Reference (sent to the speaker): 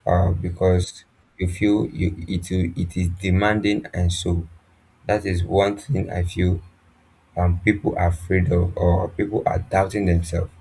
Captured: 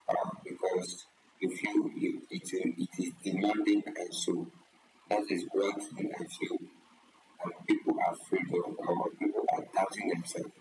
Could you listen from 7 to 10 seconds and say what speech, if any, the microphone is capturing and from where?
echo only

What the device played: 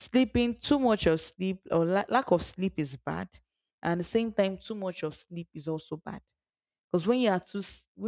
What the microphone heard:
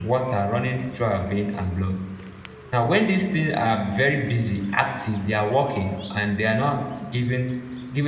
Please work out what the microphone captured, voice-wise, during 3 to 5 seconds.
user only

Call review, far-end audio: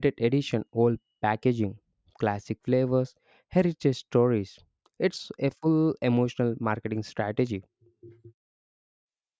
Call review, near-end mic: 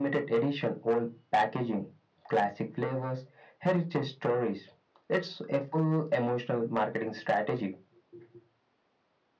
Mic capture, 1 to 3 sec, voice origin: echo only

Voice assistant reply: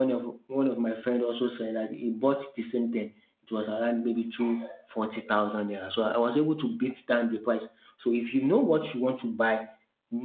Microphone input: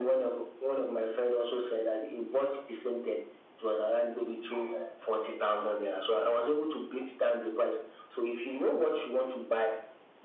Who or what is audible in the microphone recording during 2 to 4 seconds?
echo only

